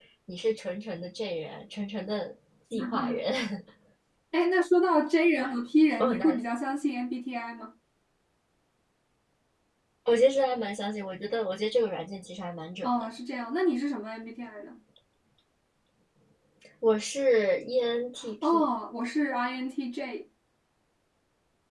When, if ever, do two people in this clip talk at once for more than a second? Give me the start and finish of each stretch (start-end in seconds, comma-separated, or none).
none